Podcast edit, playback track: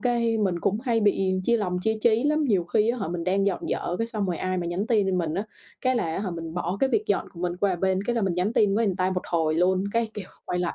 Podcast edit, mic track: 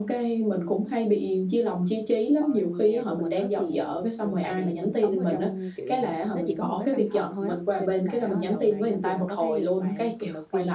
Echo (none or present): present